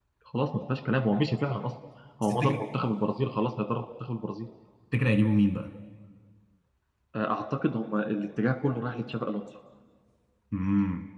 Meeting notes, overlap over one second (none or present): none